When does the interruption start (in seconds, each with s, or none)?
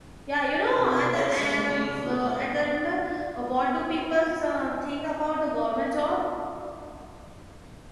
0.8 s